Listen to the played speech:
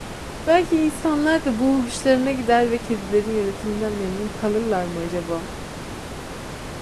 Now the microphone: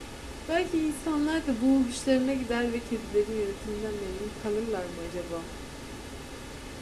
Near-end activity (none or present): none